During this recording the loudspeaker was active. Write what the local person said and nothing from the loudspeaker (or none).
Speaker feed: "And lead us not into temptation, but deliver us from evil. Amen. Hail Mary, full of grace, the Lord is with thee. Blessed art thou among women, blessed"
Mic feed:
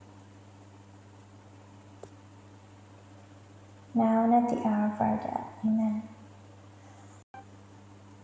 now and at the hour of our death. Amen.